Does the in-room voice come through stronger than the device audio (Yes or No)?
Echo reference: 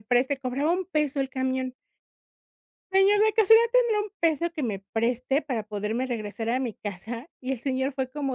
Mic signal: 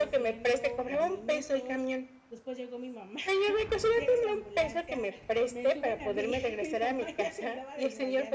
No